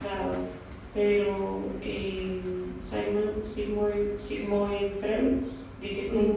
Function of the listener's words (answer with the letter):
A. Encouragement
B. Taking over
A